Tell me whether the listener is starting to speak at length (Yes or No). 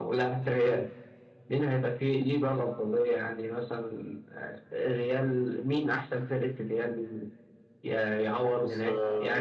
No